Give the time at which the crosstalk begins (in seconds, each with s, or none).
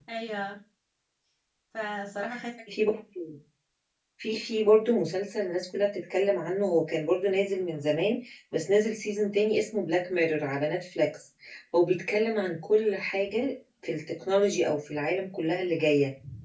none